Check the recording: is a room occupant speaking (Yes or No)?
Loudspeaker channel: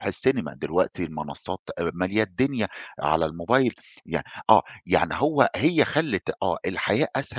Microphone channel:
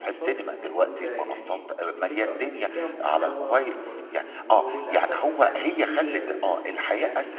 Yes